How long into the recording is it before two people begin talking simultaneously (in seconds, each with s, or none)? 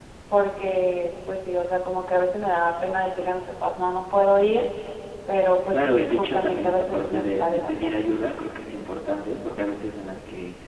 5.7 s